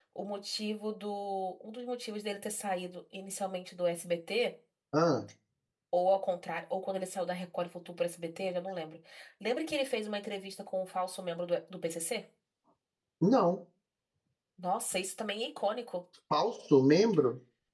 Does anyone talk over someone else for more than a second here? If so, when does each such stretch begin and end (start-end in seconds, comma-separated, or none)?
none